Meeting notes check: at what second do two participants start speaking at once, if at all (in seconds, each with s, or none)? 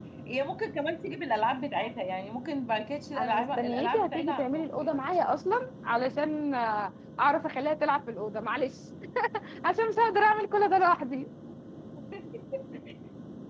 3.1 s